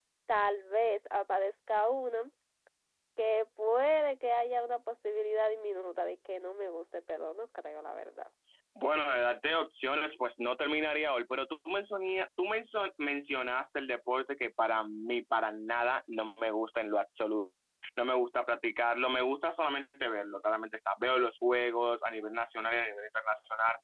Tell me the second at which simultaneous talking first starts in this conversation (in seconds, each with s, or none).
none